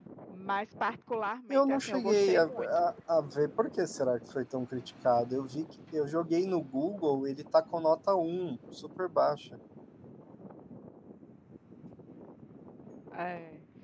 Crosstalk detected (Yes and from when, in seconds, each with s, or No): Yes, from 1.5 s